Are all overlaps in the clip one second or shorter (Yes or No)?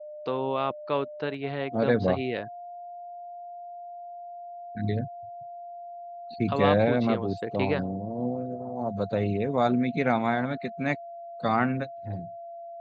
No